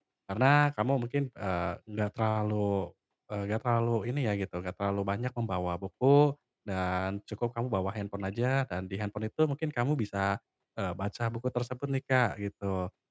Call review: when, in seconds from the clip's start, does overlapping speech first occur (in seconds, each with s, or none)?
none